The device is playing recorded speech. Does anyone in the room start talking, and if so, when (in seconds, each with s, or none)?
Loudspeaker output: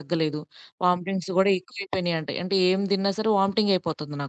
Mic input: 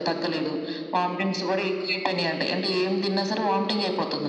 none